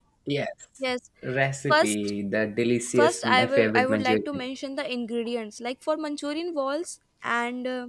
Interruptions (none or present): present